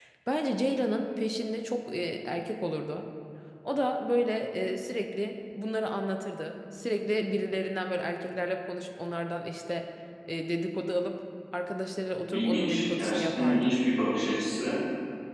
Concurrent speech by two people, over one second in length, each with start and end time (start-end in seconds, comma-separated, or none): 12.3-13.8